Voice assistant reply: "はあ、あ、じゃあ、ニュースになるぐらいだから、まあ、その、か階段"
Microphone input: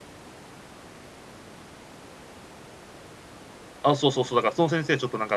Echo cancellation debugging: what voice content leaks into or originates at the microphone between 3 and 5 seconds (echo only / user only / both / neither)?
user only